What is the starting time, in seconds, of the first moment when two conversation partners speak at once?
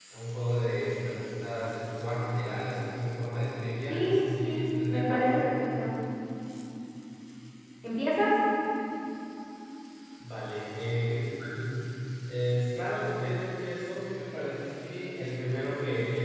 3.9 s

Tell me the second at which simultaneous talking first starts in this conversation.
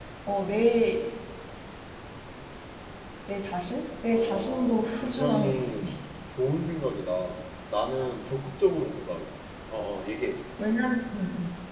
4.1 s

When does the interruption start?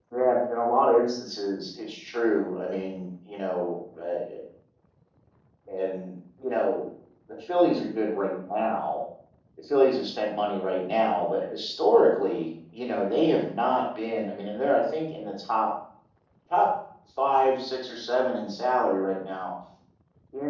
none

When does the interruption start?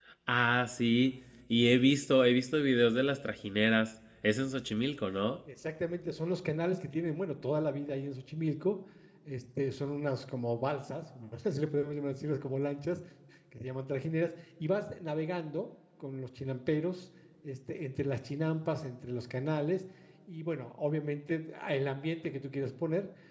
none

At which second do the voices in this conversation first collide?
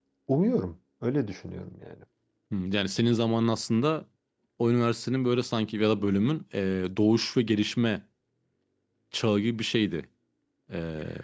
none

